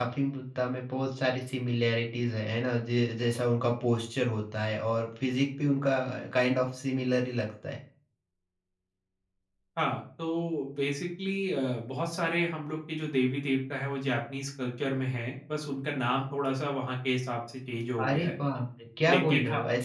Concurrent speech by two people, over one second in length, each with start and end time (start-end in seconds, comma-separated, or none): none